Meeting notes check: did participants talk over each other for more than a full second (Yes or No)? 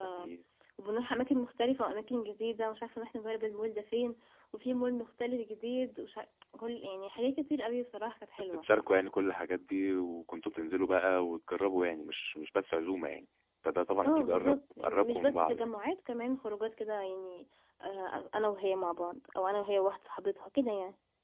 Yes